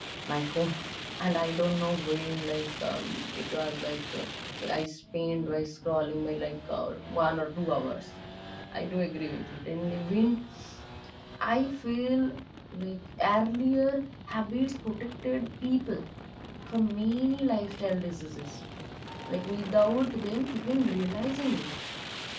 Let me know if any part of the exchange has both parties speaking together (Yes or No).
No